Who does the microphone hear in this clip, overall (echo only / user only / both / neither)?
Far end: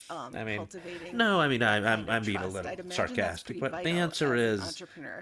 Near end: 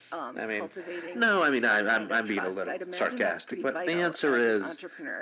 echo only